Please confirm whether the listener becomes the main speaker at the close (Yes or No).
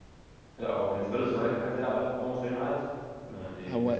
Yes